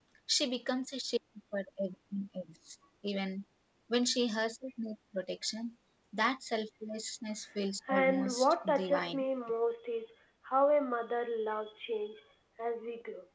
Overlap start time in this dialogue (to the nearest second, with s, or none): 8 s